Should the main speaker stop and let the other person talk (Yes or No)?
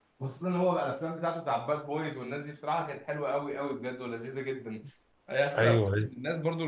No